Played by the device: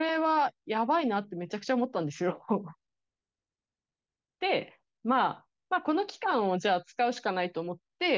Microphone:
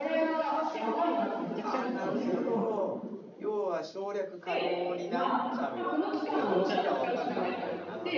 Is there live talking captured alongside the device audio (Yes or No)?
Yes